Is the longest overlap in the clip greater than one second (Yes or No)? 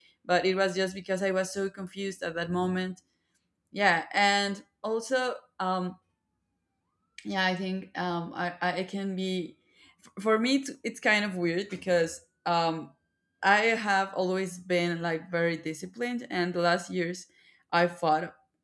No